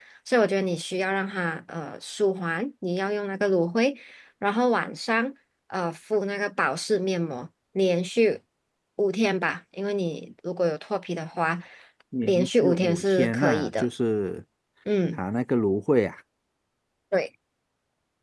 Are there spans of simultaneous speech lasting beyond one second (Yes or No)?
Yes